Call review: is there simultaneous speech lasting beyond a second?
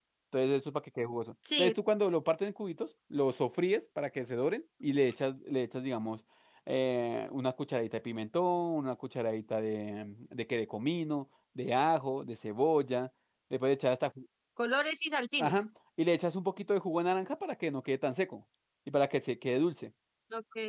No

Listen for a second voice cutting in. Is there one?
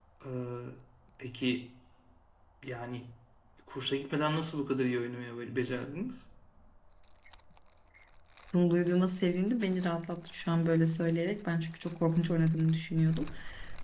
No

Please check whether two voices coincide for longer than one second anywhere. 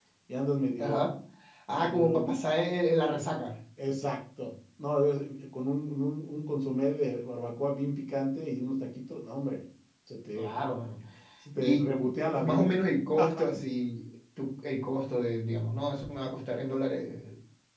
No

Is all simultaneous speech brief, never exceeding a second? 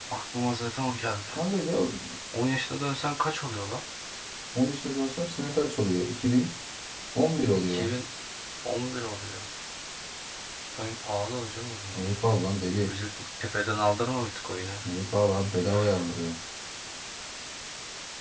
Yes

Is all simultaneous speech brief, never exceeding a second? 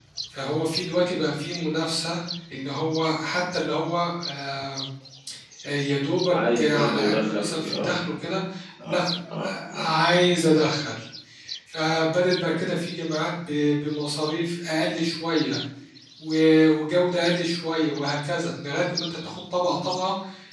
No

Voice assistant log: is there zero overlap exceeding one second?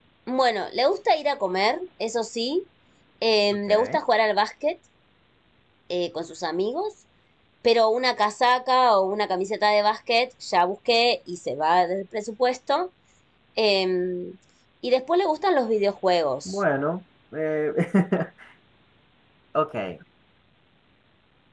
Yes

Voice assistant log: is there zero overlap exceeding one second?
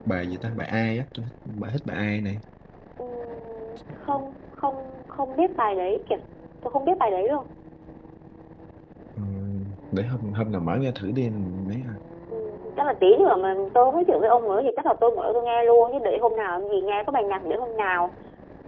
Yes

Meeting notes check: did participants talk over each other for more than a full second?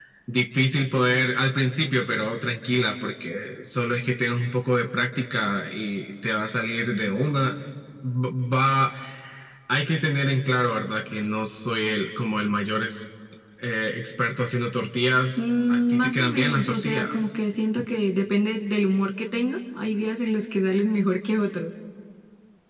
Yes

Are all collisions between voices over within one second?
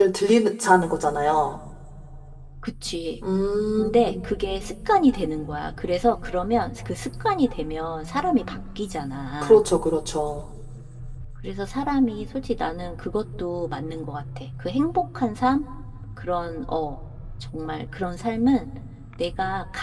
Yes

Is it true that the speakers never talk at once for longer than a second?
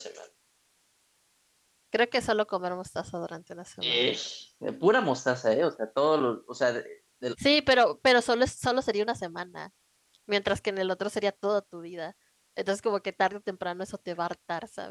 Yes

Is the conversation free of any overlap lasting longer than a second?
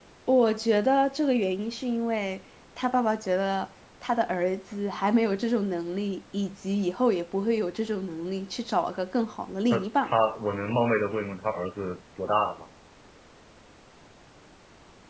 Yes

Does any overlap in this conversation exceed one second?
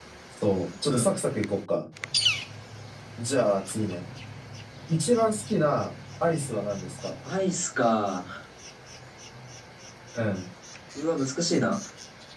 No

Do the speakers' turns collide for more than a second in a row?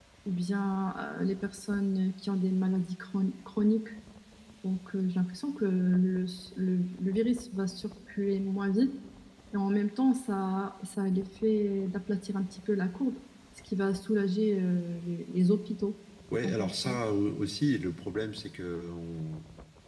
No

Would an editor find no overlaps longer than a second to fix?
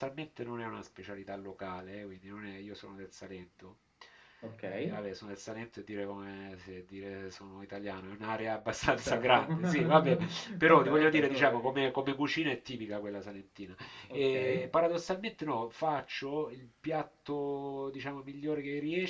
No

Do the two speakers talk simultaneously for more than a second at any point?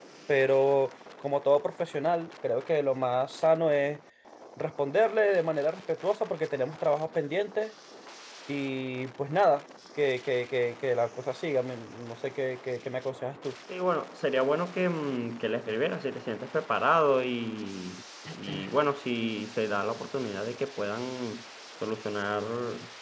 No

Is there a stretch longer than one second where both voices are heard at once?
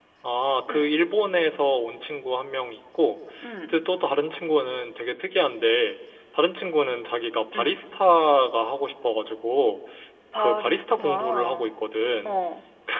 Yes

